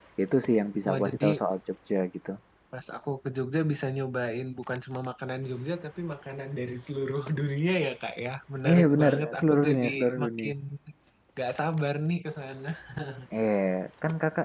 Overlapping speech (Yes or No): Yes